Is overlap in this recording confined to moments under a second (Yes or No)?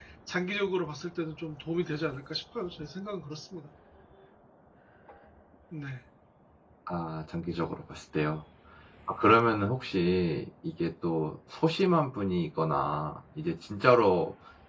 Yes